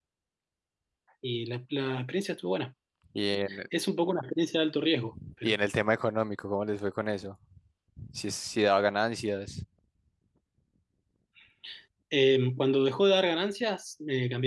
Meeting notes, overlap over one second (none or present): none